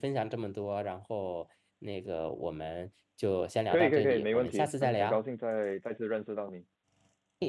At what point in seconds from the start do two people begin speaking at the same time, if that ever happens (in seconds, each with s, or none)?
3.7 s